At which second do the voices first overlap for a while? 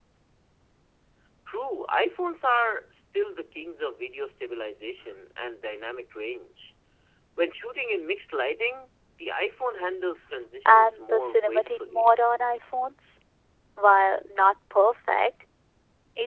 11 s

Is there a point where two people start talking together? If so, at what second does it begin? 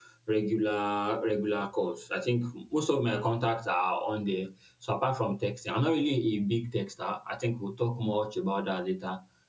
none

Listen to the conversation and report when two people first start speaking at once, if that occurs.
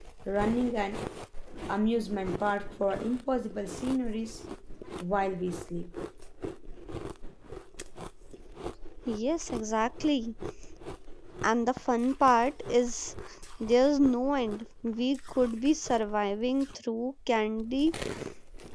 none

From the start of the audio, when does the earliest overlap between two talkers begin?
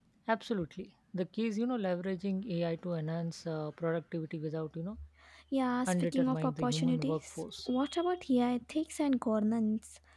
6 s

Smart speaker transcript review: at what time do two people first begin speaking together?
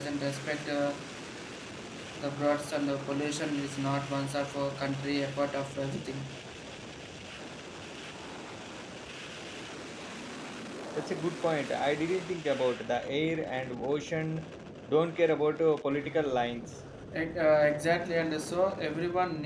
none

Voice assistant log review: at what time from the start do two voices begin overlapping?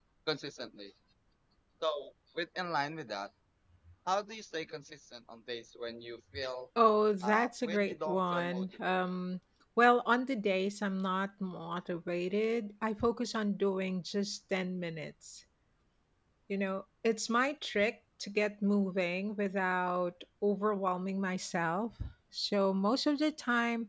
7 s

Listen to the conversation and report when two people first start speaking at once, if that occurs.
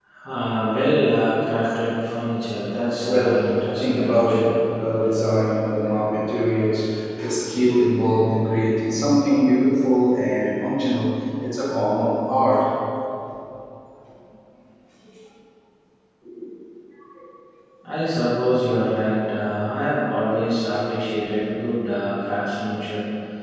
3 s

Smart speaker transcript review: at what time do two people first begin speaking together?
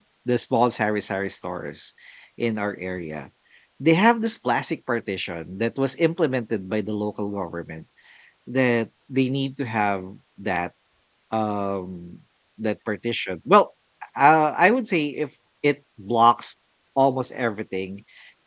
none

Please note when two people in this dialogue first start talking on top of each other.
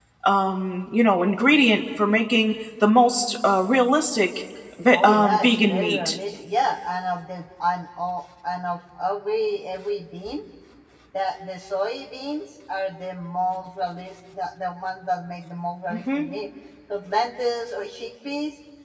5 s

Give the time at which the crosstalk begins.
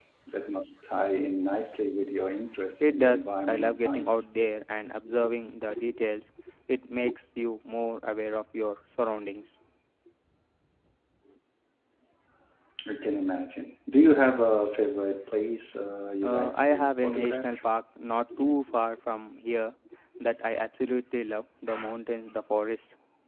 3 s

